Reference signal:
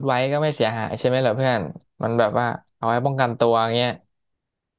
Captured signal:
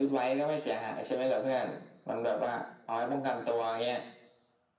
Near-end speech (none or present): none